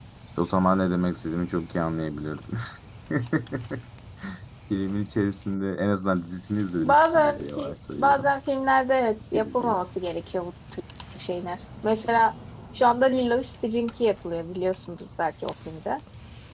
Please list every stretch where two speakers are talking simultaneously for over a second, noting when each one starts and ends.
6.8-8.3

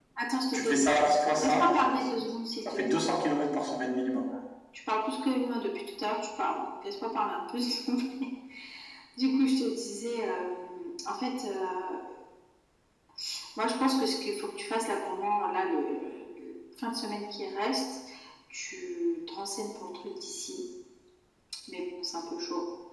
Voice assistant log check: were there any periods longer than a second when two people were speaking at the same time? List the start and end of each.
0.5-1.9

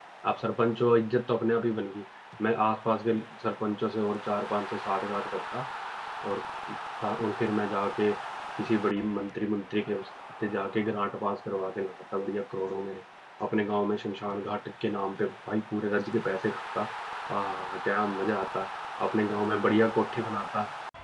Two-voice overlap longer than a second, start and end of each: none

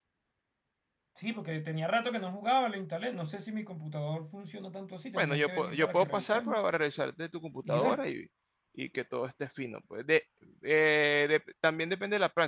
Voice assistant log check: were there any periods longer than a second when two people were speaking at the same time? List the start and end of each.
5.2-6.6

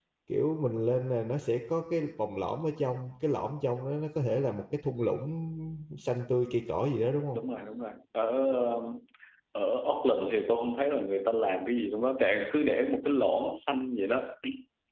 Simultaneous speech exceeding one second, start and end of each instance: none

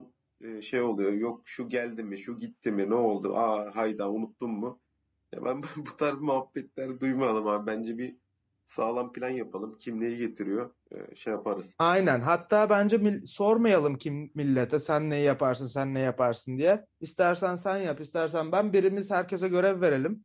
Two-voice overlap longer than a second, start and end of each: none

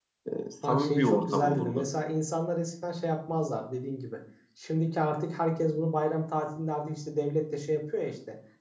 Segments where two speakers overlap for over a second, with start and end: 0.6-1.9

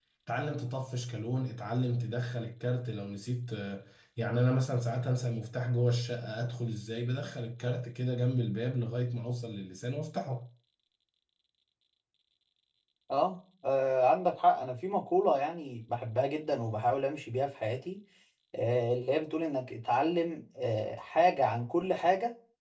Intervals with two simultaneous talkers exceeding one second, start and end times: none

